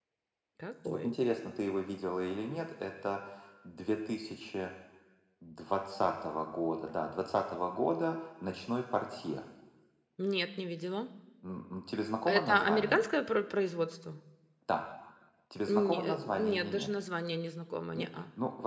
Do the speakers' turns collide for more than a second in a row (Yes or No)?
Yes